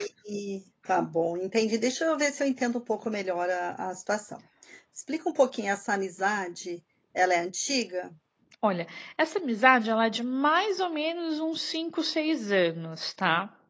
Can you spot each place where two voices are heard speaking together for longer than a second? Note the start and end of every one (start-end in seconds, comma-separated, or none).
none